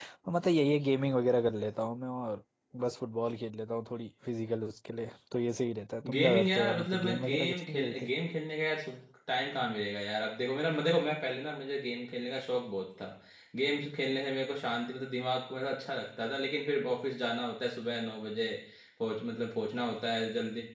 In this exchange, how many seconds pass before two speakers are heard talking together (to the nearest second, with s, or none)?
6 s